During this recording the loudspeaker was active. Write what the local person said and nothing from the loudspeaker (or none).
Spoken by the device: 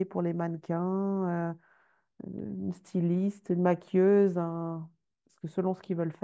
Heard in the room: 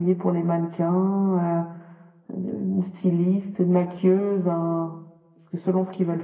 none